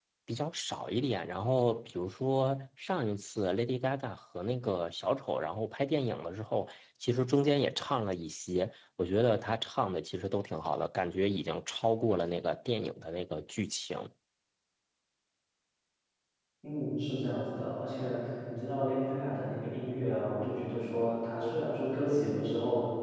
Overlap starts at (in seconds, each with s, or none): none